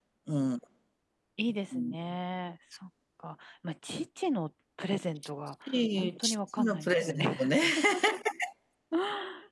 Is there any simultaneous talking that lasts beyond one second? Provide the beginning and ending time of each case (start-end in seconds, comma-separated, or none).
6.0-7.5